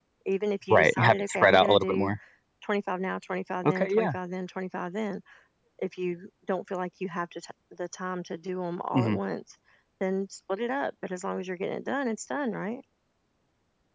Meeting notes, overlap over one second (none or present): present